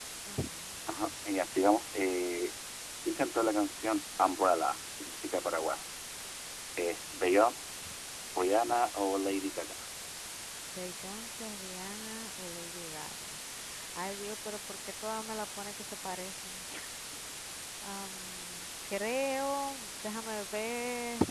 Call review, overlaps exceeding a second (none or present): none